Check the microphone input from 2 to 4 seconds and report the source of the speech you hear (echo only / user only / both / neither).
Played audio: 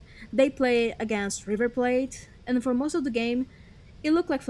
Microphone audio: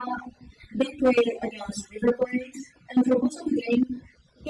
echo only